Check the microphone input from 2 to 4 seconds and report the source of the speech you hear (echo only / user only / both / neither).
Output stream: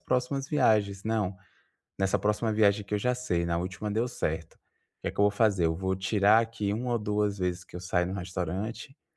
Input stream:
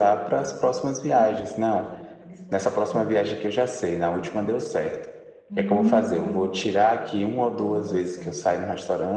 both